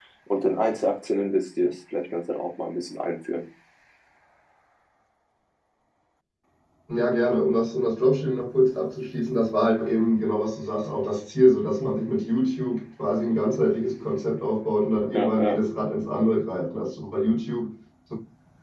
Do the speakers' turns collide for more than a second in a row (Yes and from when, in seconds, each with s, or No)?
No